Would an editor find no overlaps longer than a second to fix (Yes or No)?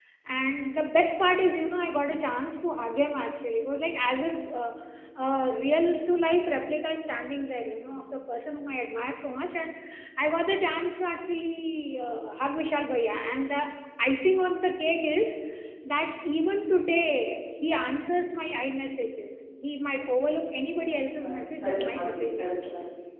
No